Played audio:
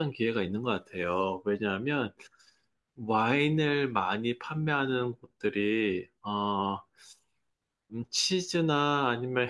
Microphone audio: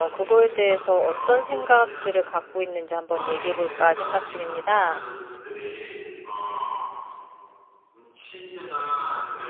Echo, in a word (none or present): present